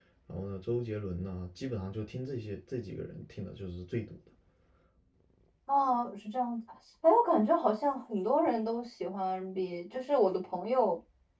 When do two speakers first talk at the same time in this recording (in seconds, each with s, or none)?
none